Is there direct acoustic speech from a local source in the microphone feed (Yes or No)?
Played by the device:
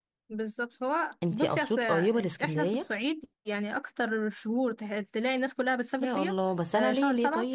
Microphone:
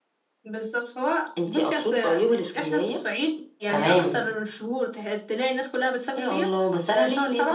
Yes